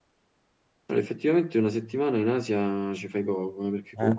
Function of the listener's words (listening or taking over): listening